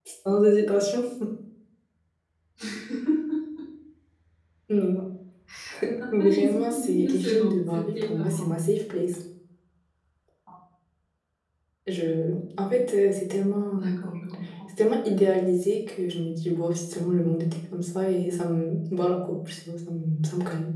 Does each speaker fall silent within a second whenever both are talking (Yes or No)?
No